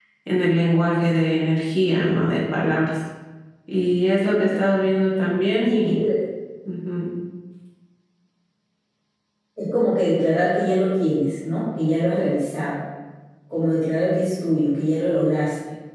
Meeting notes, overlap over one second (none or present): none